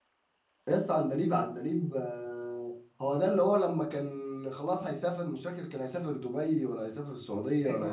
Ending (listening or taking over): taking over